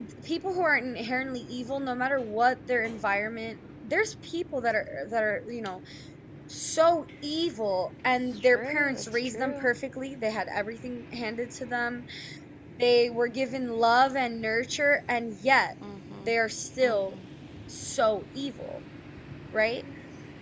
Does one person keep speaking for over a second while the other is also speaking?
Yes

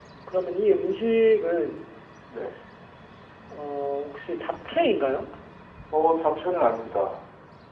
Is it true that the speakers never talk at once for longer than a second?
Yes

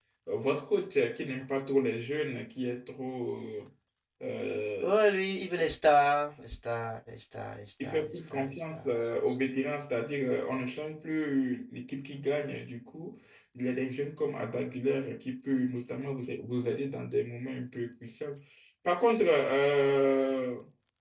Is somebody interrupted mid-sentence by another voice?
Yes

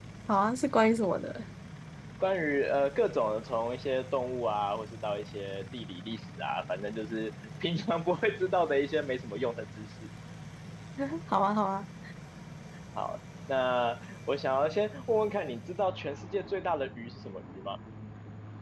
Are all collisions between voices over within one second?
Yes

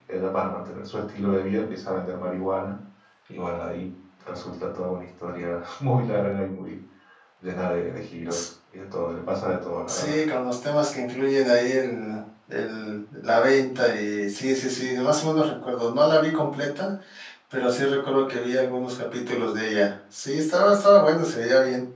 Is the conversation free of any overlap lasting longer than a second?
Yes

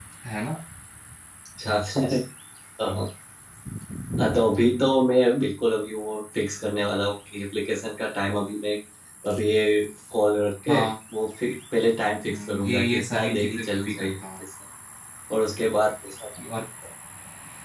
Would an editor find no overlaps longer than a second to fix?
No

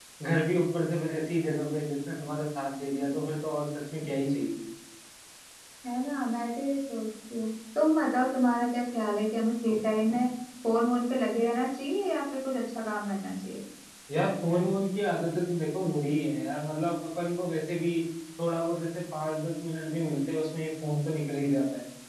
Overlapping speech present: No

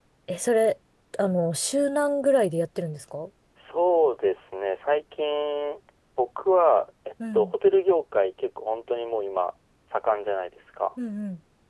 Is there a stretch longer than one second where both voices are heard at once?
No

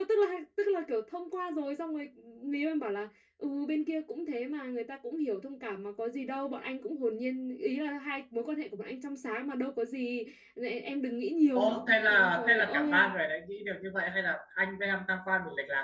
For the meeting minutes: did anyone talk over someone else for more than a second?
Yes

